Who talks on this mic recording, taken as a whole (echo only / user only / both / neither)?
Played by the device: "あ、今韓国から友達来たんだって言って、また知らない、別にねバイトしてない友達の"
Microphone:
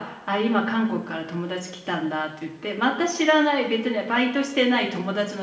echo only